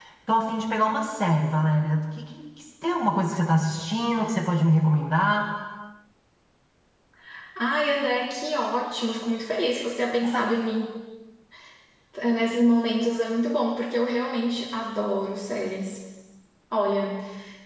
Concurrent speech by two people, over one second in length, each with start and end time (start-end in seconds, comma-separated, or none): none